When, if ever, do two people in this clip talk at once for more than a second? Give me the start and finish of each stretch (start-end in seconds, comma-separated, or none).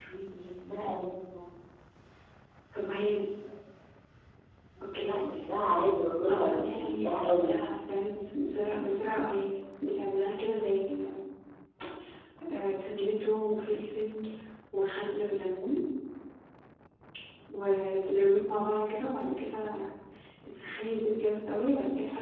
6.3-7.5